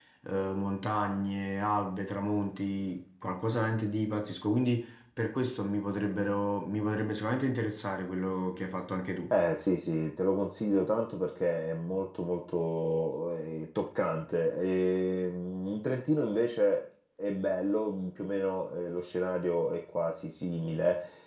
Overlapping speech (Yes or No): No